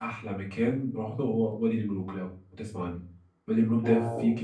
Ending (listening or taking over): listening